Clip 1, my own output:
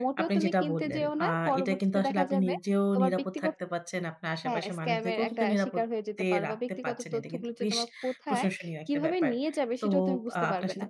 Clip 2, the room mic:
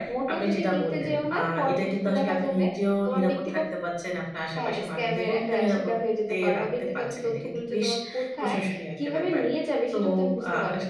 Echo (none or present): present